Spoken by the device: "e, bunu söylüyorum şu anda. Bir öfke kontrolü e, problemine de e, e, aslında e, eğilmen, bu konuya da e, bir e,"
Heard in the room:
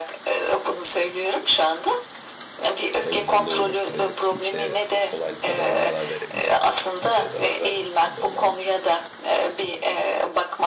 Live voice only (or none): O yüzden de uzun süredir kimseye kolaylıkla zarar verebileceğim halde kimseye zarar vermedim. Bu da olabilir.